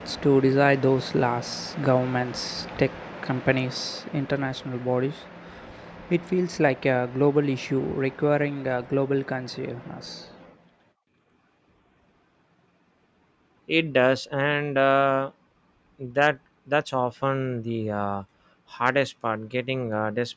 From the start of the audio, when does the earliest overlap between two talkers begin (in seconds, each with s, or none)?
none